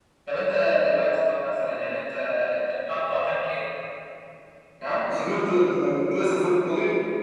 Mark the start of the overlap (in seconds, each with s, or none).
none